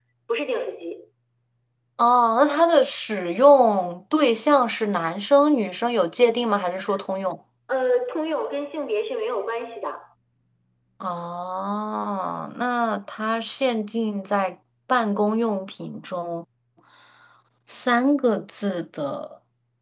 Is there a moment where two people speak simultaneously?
No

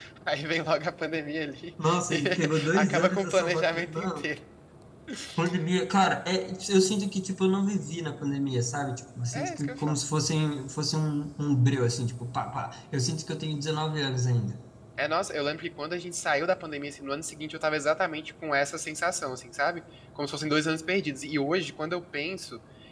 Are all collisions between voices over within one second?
No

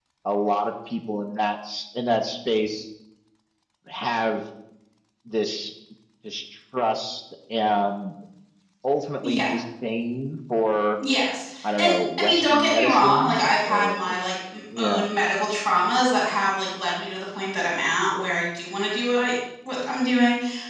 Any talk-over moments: Yes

